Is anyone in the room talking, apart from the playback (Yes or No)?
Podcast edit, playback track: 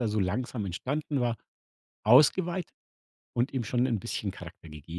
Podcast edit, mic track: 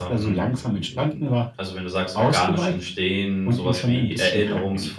Yes